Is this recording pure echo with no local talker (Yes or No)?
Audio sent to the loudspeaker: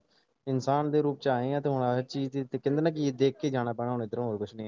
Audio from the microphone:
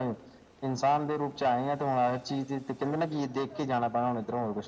Yes